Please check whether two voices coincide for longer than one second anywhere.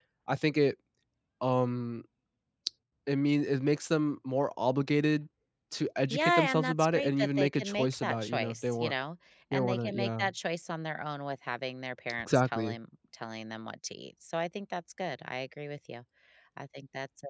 Yes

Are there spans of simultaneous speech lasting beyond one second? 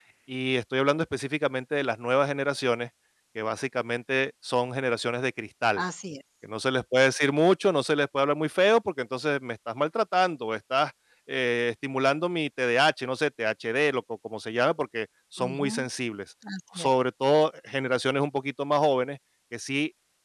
No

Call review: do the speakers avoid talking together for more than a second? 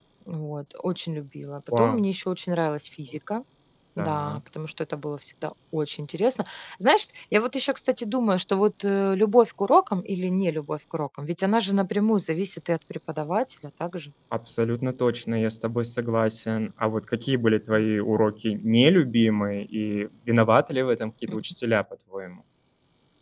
Yes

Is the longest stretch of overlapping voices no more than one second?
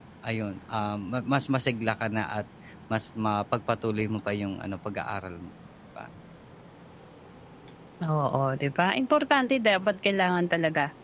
Yes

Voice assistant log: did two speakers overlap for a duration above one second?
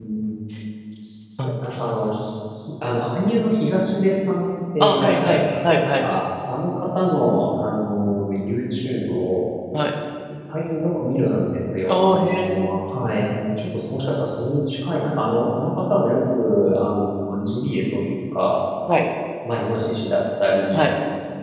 Yes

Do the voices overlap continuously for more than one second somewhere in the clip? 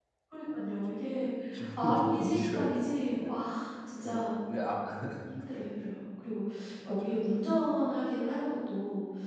Yes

